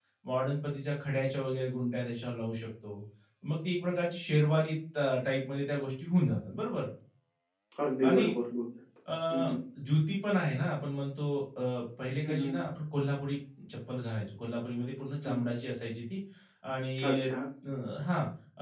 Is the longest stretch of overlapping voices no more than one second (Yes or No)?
Yes